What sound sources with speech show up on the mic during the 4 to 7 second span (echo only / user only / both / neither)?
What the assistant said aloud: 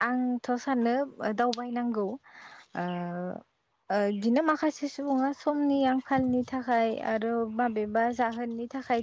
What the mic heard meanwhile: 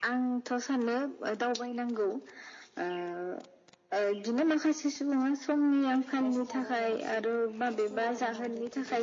both